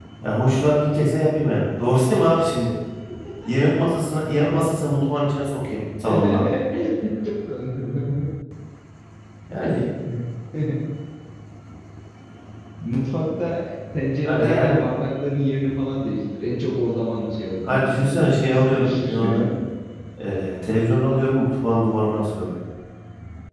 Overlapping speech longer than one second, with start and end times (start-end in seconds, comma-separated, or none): 17.7-19.2